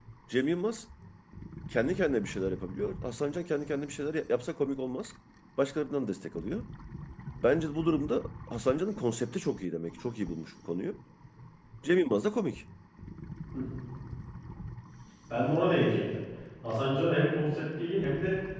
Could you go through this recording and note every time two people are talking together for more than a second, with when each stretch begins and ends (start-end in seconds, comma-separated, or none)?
none